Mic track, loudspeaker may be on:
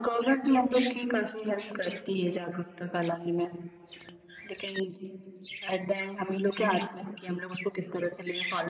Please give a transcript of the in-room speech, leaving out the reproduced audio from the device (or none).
none